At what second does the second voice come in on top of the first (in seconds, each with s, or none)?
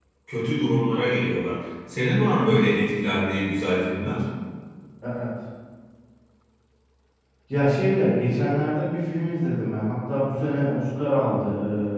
none